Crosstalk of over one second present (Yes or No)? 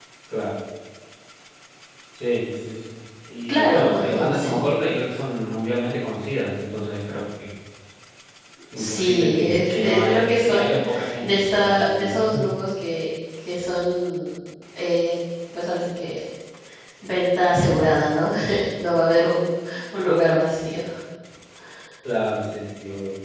Yes